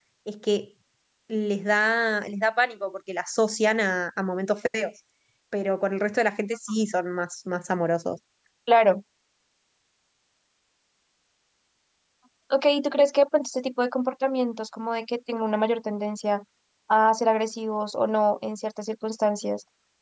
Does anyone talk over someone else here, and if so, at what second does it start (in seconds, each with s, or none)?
none